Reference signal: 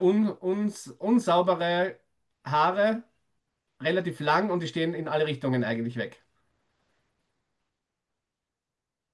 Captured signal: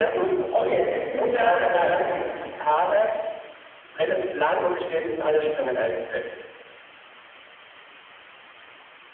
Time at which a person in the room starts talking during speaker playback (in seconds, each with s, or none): 0.5 s